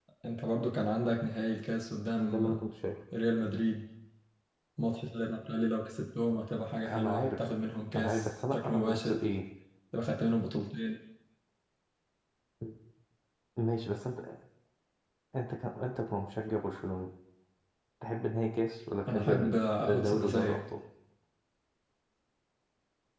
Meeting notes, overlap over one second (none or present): present